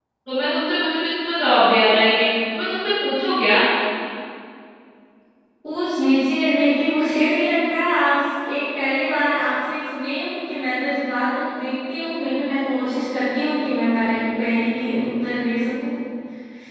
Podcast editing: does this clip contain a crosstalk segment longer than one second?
No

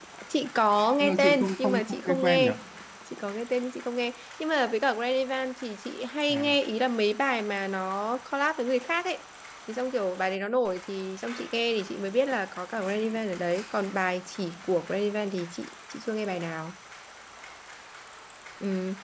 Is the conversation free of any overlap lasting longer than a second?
No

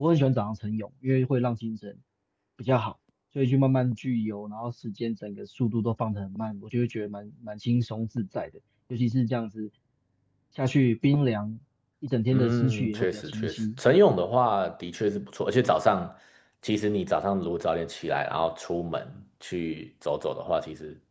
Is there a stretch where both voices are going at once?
Yes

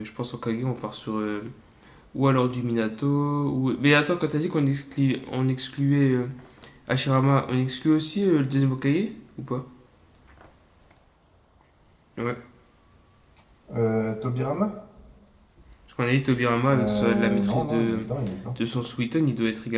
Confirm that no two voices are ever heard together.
No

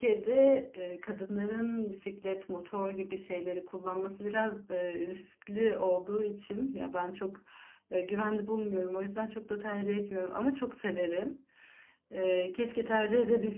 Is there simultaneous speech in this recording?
No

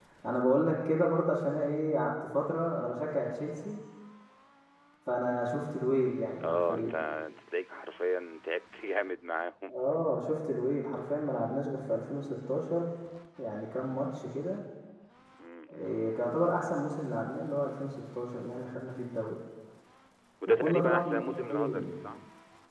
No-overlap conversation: No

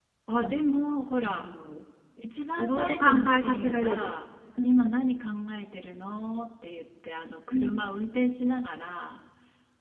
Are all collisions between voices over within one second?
No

